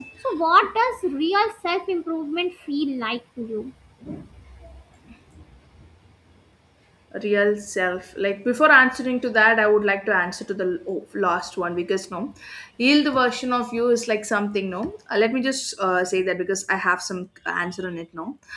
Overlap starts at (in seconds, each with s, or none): none